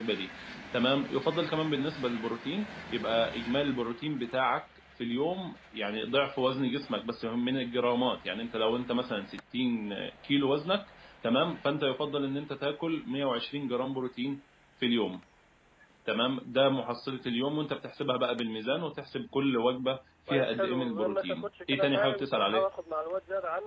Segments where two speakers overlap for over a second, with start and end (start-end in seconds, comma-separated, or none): 20.3-22.6